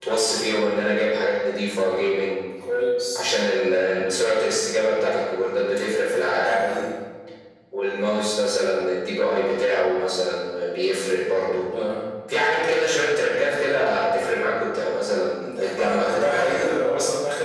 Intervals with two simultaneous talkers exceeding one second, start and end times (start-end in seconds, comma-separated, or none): 15.4-16.7